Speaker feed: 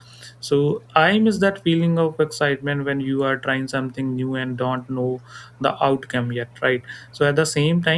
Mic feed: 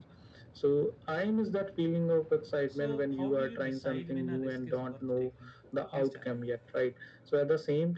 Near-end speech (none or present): present